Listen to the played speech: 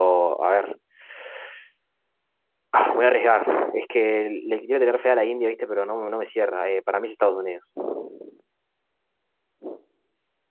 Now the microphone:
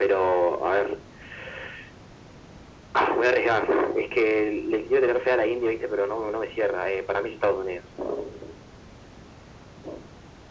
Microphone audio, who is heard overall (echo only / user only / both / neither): echo only